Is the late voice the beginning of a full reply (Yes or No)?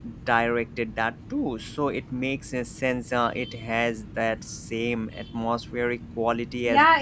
Yes